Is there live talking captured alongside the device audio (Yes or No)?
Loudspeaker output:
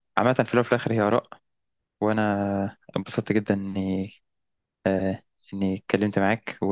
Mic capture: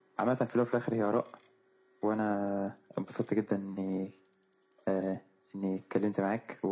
No